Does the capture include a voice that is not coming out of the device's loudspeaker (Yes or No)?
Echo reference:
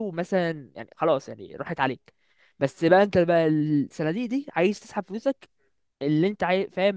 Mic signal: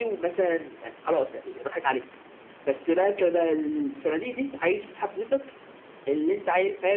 No